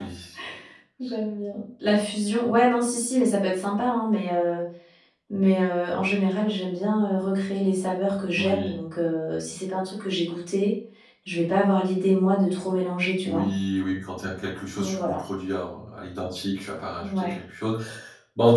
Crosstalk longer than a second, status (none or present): none